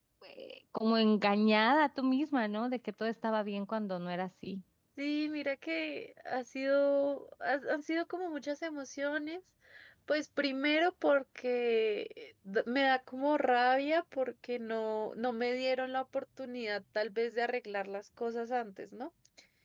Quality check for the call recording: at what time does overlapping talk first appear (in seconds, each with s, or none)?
none